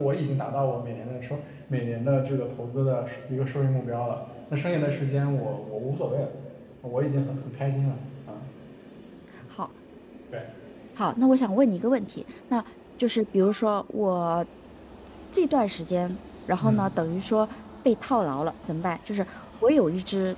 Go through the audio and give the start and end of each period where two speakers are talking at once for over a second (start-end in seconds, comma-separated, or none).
none